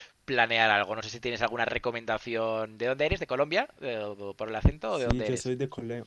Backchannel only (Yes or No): No